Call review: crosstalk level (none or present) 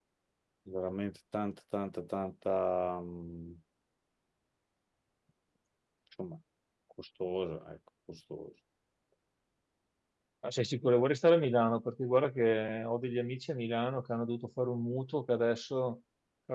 none